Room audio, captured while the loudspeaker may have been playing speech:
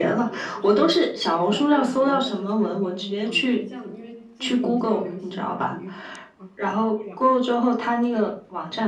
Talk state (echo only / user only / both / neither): both